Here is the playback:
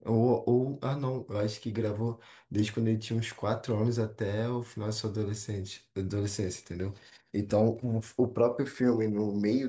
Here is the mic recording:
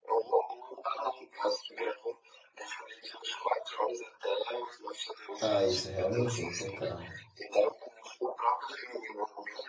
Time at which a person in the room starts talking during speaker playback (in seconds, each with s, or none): 5.4 s